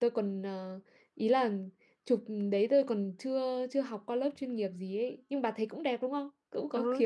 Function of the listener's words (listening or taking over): taking over